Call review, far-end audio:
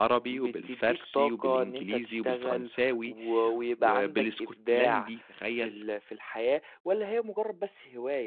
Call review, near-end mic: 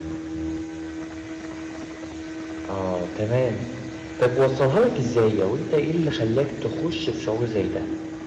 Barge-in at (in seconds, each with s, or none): 2.7 s